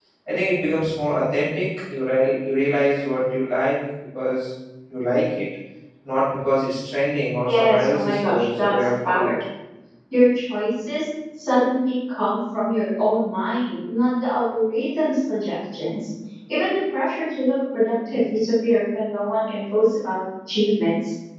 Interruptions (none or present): present